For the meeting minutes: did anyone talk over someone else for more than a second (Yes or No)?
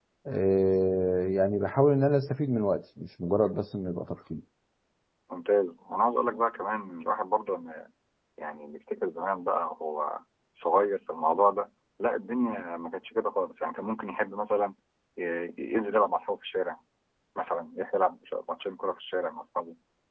No